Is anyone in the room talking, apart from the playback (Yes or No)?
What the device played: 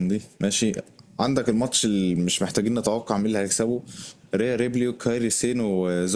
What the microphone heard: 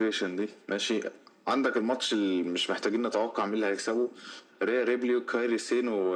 No